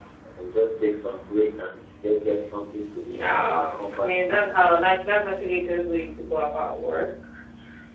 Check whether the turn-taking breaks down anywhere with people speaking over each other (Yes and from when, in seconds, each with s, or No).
Yes, from 3.1 s